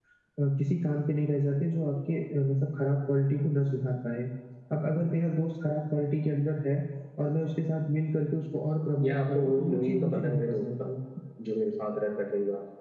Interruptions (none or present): present